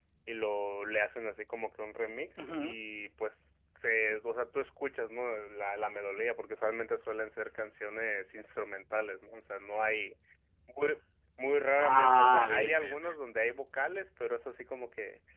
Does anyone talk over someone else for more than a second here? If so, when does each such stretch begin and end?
11.8-13.1

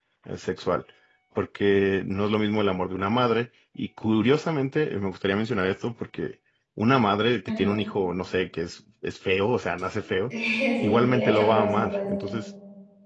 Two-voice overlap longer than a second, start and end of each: 10.8-12.1

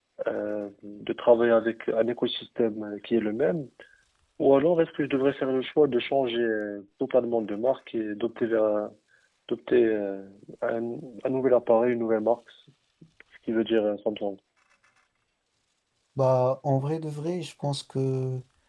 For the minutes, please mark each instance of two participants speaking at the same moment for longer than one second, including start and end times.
none

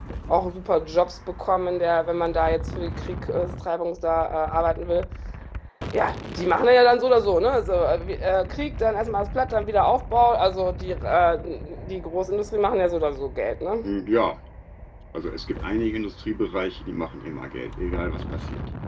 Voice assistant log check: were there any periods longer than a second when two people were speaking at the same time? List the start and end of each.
none

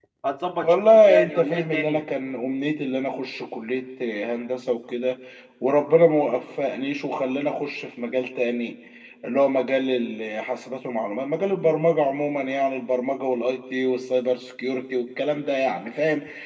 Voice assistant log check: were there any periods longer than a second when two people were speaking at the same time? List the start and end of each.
0.6-2.0

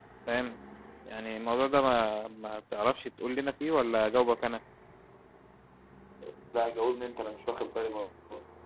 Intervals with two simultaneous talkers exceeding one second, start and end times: none

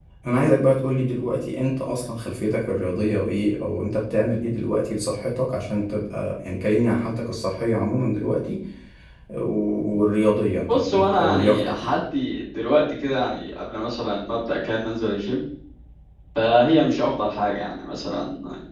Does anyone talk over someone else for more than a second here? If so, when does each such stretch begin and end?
10.7-12.0

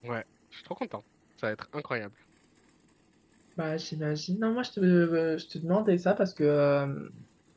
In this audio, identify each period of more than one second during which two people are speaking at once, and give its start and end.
none

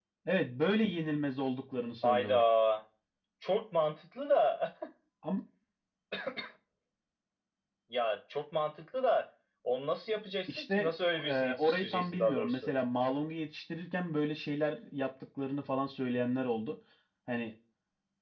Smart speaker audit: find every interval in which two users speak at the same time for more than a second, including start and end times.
10.5-12.7

